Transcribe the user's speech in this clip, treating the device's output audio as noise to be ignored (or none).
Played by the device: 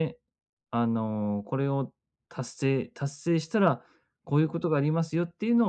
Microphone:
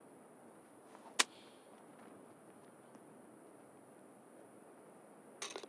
none